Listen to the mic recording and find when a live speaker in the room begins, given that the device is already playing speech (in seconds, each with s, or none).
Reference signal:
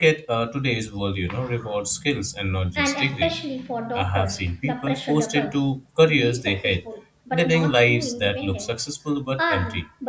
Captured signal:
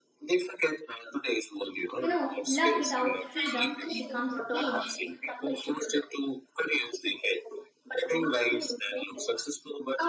2.0 s